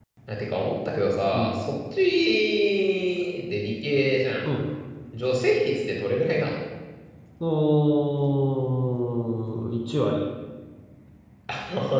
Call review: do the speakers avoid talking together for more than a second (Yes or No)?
Yes